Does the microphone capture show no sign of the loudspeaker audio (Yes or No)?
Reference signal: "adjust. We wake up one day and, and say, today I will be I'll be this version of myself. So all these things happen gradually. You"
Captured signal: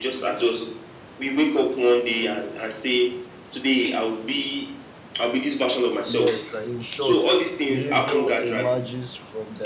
No